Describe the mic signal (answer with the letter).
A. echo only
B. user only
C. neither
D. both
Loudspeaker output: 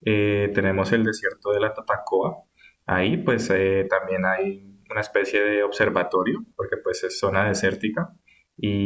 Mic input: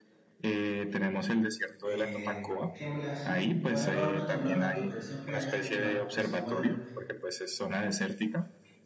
D